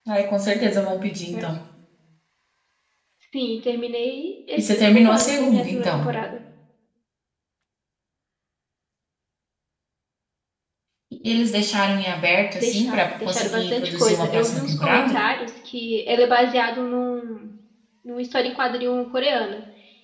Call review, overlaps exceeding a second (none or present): present